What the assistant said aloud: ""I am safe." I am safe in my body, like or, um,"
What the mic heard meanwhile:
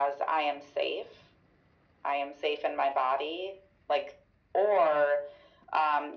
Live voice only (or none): none